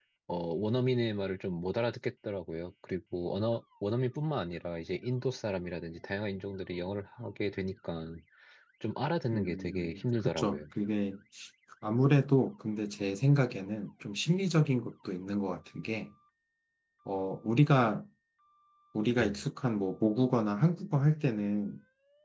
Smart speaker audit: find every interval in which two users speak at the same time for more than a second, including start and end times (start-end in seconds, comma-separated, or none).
9.3-10.6